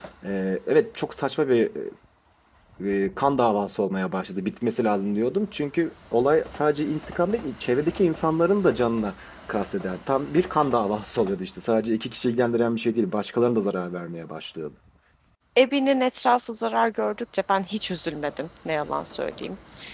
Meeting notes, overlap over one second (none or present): none